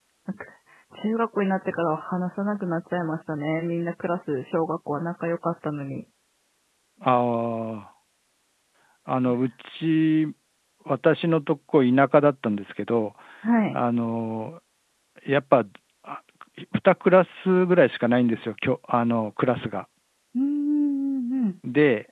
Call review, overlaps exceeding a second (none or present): none